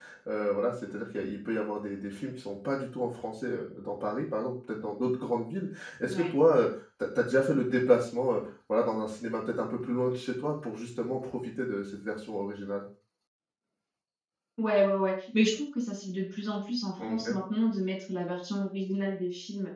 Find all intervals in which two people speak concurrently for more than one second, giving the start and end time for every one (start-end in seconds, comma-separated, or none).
none